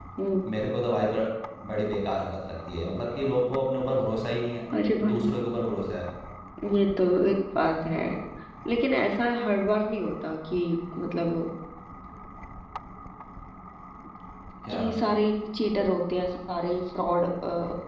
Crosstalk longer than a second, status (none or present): none